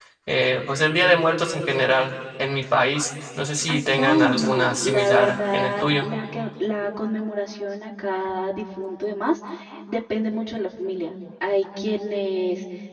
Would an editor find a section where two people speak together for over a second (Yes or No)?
Yes